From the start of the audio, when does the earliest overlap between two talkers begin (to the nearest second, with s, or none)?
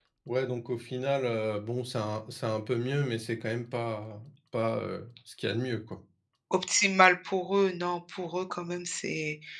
none